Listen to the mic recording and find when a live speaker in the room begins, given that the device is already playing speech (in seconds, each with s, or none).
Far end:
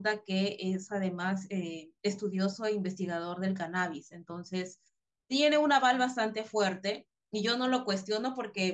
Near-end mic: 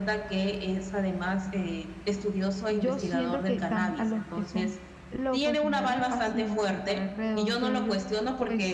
2.7 s